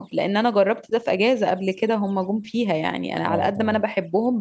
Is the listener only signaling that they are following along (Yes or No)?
Yes